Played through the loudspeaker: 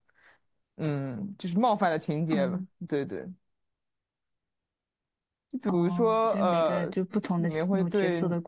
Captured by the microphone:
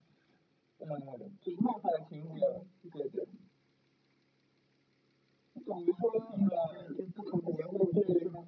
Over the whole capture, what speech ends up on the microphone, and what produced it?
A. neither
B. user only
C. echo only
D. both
C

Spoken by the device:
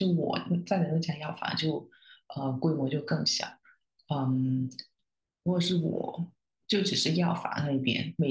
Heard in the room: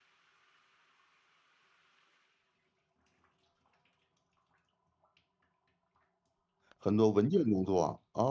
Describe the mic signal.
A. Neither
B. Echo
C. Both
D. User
D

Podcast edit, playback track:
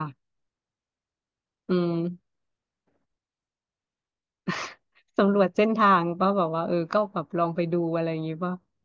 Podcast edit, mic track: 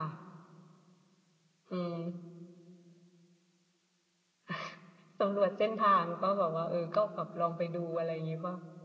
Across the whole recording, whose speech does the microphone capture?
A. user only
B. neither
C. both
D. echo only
D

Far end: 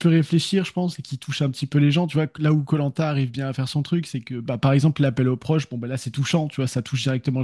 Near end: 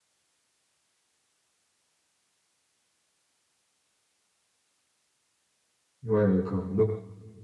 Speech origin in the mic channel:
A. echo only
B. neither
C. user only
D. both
C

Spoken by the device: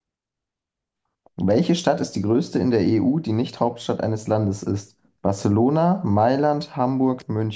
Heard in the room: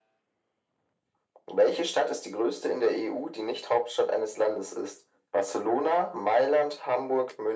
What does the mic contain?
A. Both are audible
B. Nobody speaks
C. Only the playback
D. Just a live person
C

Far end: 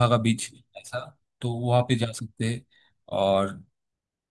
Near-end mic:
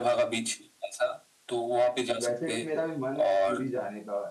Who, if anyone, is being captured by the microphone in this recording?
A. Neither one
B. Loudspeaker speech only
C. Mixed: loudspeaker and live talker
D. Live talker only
C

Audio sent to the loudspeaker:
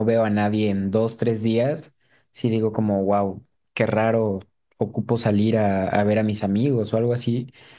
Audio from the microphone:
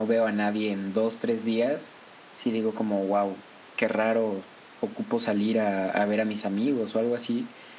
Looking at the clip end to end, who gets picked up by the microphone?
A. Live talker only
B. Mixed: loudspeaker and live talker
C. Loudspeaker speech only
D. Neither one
C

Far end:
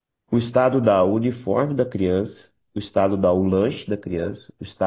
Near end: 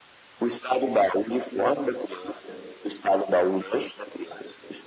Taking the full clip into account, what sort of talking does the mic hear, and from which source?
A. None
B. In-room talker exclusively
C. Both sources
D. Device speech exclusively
D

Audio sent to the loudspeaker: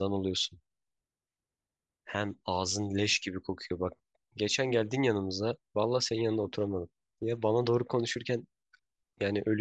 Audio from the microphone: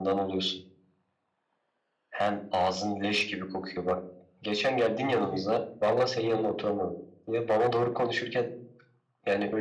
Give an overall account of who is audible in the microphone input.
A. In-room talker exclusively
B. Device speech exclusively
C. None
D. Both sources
D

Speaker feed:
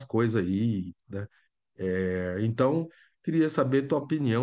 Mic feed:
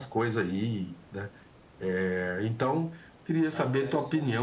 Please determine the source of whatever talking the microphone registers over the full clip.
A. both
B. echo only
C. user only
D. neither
A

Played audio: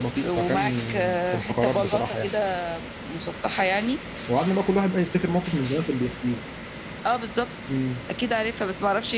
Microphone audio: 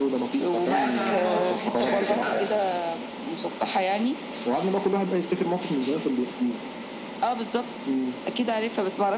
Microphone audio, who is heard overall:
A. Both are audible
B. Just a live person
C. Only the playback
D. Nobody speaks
A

